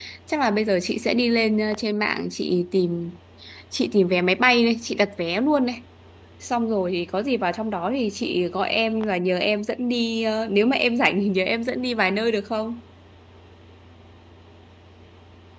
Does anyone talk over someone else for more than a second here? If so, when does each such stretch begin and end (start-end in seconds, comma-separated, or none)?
none